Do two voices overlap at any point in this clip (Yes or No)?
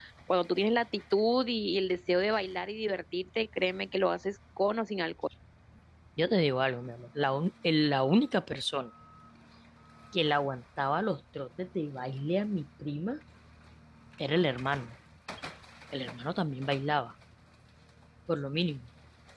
No